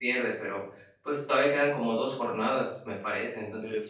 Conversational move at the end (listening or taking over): taking over